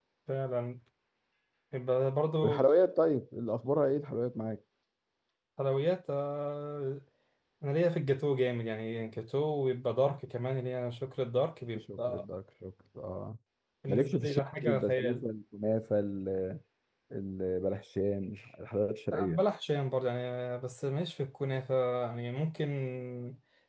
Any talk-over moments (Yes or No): Yes